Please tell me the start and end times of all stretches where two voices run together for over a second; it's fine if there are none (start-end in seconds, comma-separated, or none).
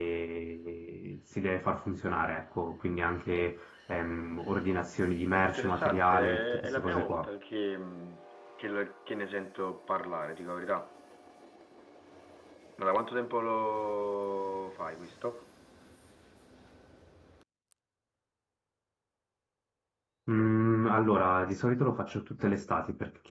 5.4-7.3